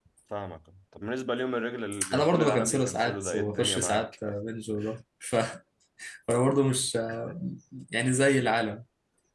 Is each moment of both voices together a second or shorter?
No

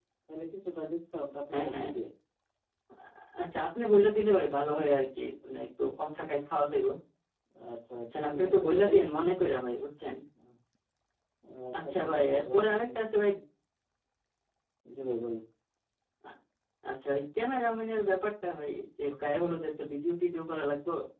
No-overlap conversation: No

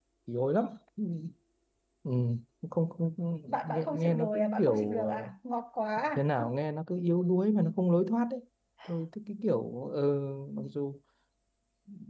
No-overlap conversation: No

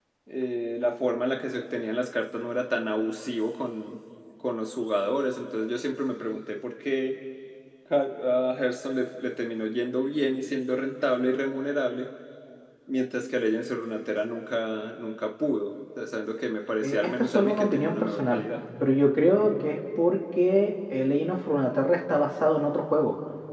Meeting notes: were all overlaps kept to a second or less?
No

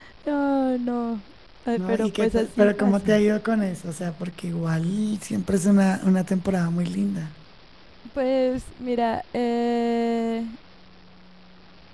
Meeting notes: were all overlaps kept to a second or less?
No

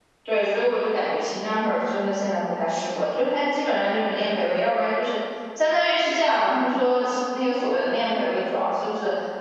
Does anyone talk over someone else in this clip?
No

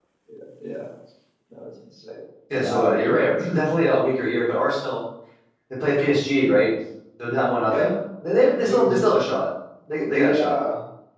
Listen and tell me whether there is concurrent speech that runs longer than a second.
No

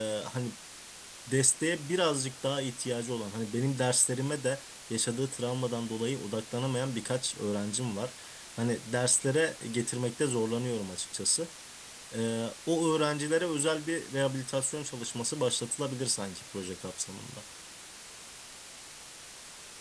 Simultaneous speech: No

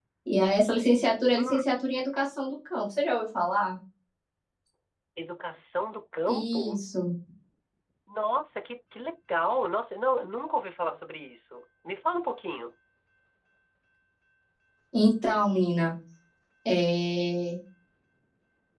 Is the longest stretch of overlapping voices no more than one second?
Yes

